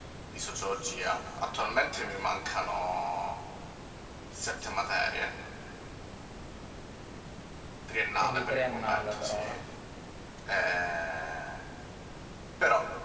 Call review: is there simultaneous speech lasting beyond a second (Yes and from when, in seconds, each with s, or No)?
Yes, from 8.2 s